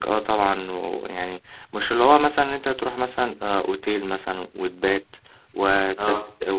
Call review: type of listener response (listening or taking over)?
listening